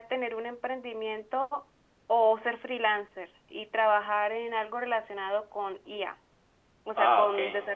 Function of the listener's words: listening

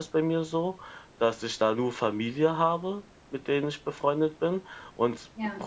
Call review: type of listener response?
listening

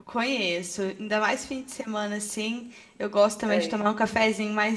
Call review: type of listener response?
listening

